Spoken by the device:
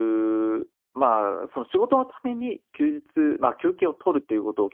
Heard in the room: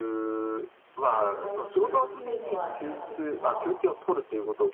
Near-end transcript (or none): 時間帯を作るっていうのはいかがですか？